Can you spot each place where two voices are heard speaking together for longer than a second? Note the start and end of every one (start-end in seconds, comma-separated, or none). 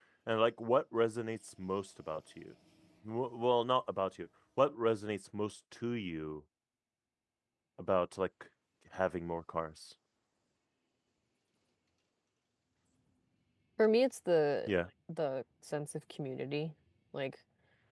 none